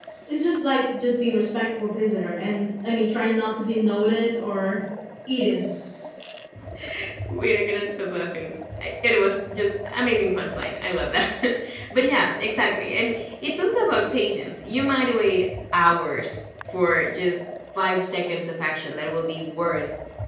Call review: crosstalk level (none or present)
none